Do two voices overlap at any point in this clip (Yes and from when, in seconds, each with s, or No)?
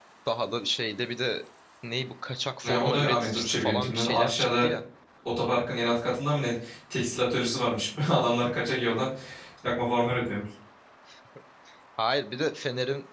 Yes, from 2.6 s